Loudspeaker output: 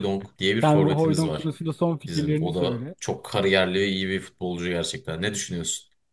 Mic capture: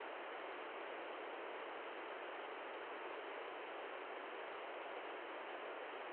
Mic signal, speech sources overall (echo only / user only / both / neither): neither